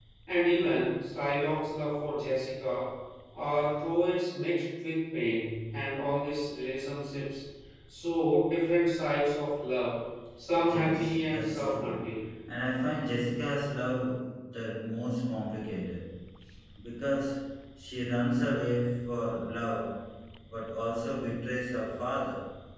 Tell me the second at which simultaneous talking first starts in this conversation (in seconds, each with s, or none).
10.7 s